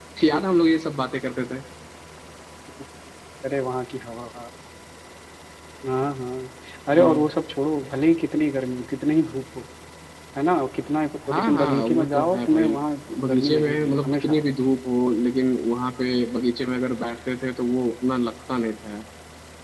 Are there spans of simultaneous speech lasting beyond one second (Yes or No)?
Yes